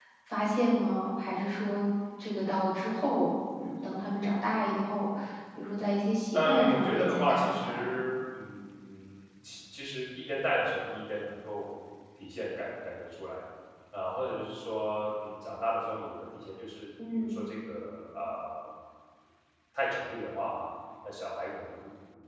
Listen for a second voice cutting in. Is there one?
Yes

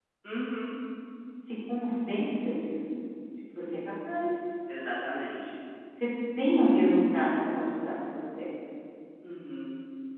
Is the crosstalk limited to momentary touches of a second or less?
Yes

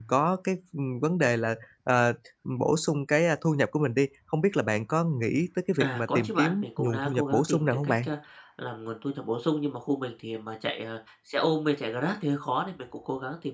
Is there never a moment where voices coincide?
No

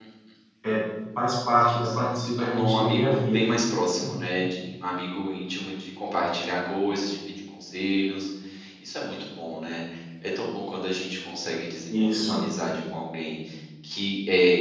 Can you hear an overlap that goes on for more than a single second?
Yes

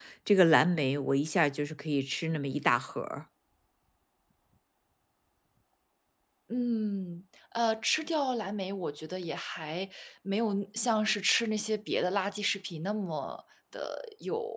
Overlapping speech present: No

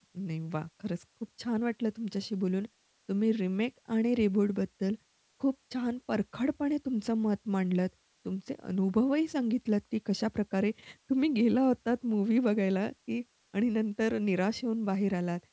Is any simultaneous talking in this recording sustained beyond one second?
No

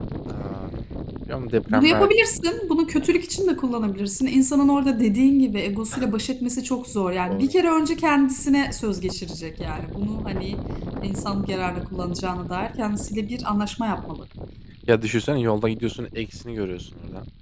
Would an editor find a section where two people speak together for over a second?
No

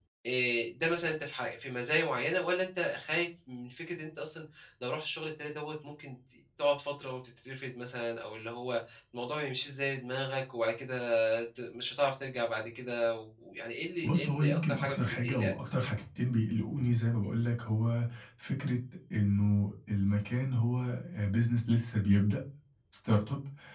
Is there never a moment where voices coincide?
No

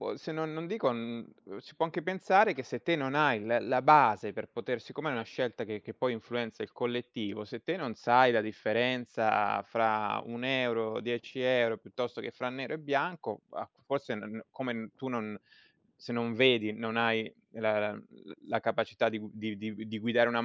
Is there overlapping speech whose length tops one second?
No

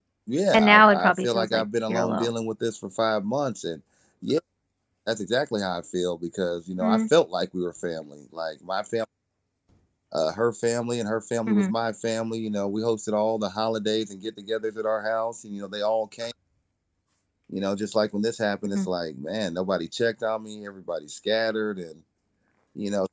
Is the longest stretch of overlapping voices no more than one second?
No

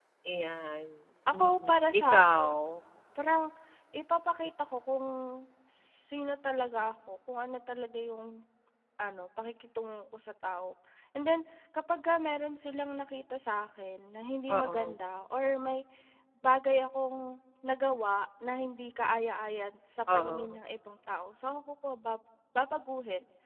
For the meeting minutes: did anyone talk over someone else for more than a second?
Yes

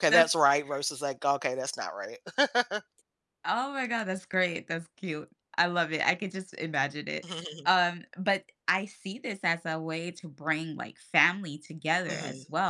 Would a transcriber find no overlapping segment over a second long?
Yes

